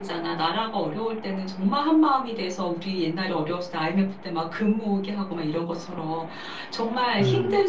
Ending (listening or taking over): listening